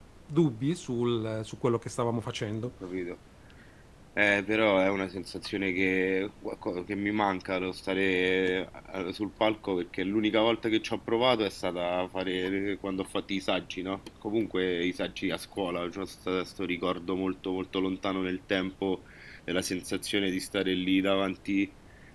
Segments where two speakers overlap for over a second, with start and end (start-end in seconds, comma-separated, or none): none